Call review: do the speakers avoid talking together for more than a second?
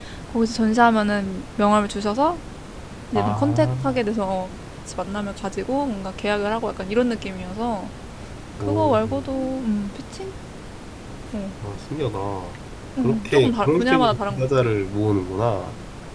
No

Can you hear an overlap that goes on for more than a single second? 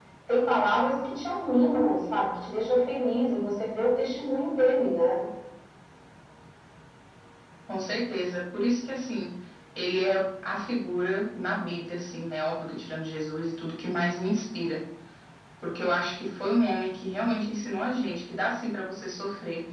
No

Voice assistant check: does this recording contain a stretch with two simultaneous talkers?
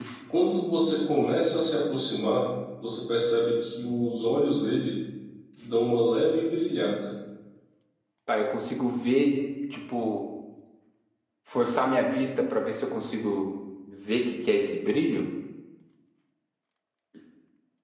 No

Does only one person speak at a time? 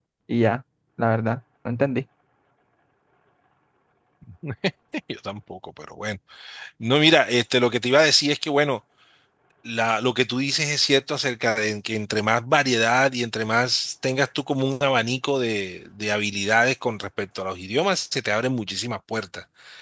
Yes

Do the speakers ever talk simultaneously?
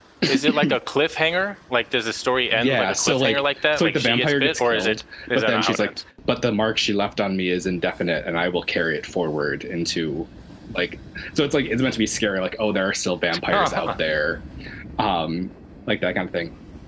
Yes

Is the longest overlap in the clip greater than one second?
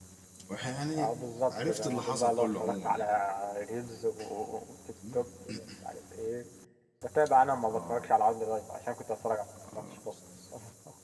Yes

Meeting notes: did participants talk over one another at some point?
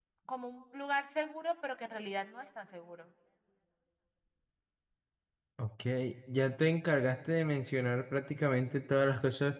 No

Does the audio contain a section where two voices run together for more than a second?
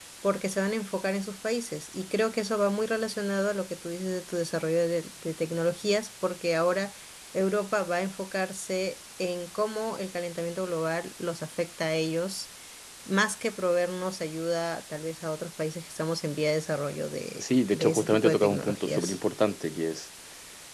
Yes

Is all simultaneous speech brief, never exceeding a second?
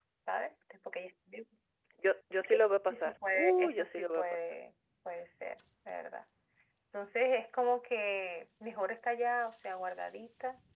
No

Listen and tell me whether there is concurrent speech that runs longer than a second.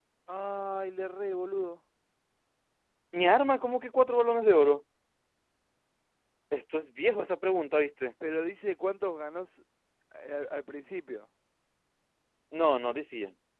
No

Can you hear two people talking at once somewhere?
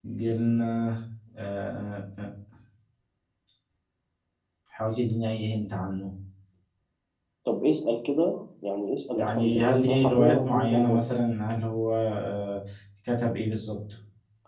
Yes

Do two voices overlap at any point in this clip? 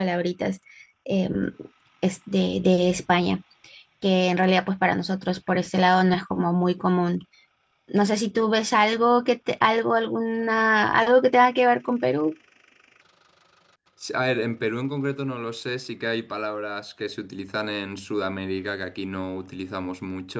No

